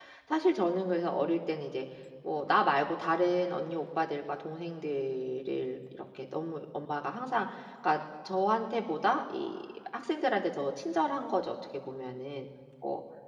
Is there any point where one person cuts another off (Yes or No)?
No